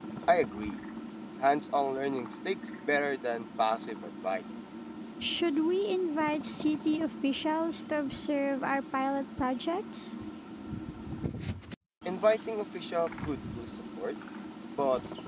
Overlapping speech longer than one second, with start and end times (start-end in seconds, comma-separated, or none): none